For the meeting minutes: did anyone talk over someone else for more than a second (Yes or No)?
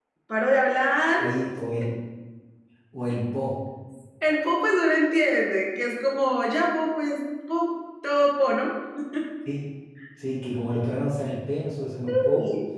No